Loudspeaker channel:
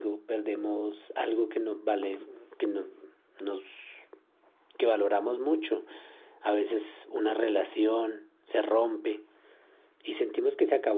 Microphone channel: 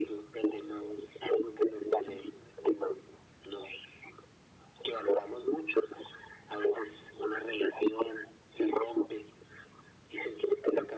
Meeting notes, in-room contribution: none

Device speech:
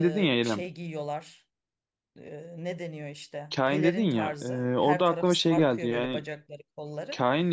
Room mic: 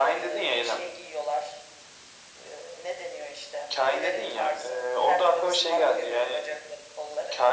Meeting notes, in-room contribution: none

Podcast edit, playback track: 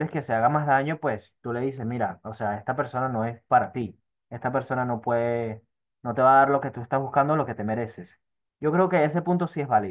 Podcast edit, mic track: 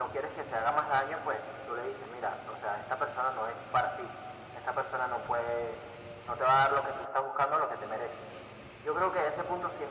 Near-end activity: none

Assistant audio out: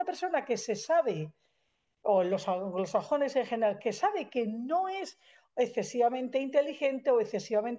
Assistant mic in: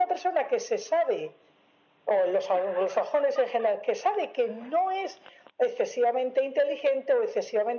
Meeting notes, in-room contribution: none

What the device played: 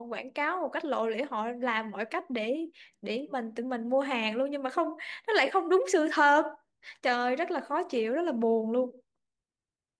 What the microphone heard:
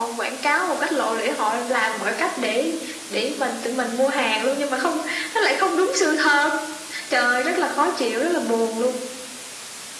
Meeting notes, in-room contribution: none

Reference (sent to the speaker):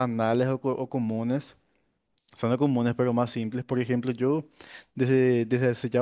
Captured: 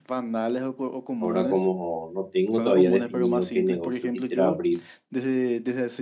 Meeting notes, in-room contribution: present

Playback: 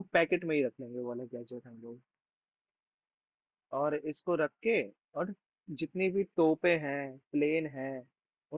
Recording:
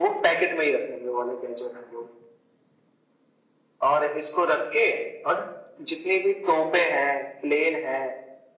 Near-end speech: none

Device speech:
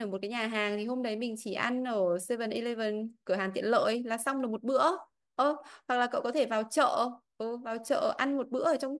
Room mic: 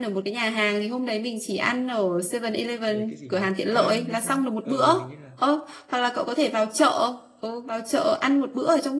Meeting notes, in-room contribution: present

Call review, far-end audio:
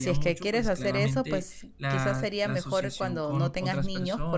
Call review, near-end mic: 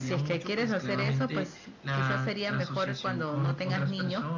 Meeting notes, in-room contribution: none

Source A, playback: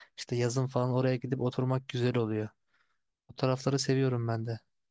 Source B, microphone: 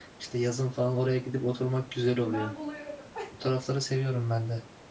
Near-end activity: present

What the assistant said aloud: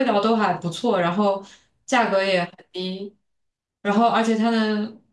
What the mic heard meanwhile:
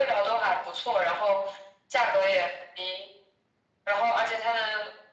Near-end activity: none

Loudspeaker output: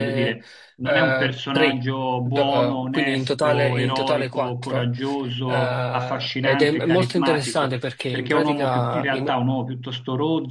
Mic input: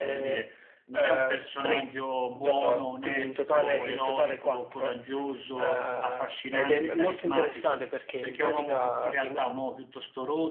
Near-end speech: none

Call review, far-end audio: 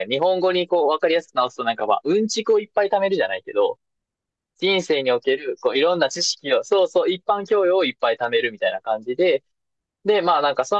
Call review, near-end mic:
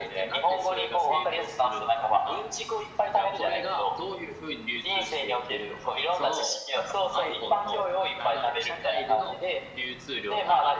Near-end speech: present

